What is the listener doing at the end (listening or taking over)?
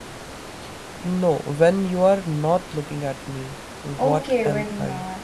taking over